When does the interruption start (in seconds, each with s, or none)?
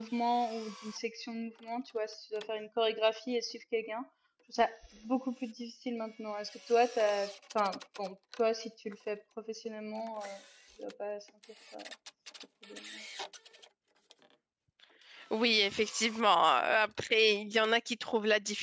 none